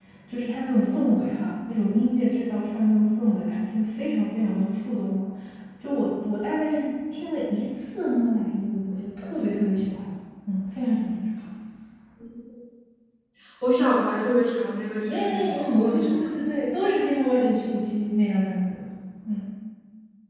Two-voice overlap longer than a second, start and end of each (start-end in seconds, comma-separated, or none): 15.1-16.4